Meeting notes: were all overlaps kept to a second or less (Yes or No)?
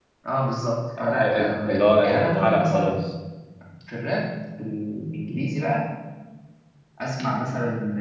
No